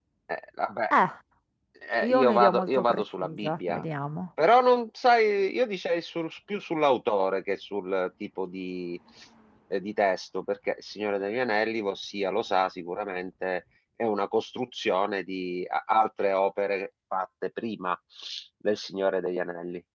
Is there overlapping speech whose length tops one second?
Yes, from 2.1 s

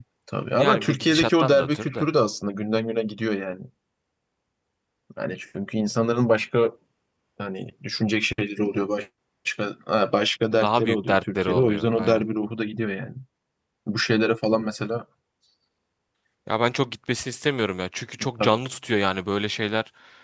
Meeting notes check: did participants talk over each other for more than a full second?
Yes, from 0.6 s

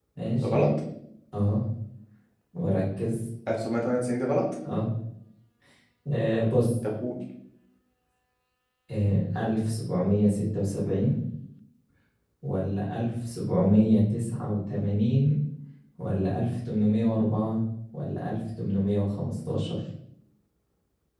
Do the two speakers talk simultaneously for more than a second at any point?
No

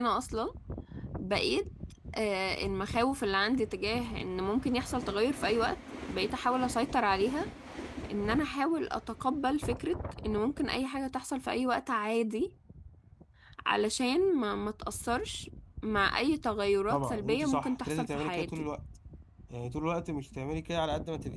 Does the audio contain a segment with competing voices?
Yes, from 16.9 s

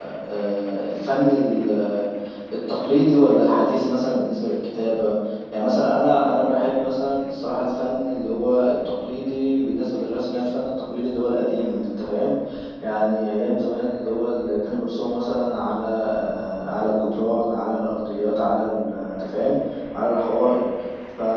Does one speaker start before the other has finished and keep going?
No

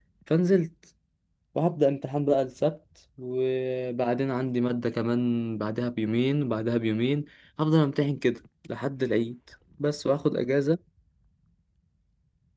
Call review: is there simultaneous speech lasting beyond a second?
No

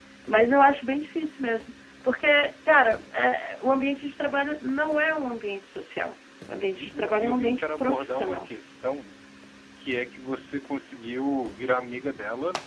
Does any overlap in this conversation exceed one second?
Yes, from 6.7 s

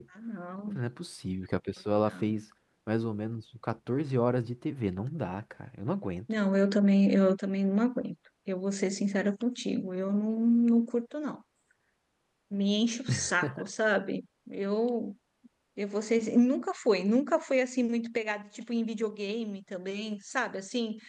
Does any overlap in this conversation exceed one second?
No

